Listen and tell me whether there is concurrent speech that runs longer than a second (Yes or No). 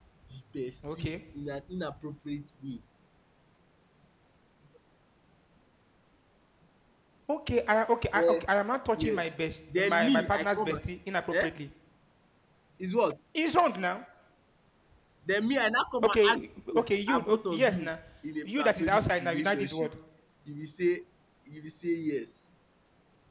Yes